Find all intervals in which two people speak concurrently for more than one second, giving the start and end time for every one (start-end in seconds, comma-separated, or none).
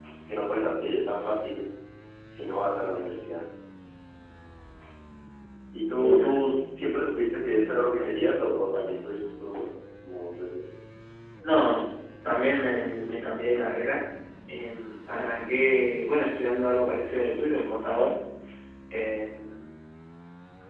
none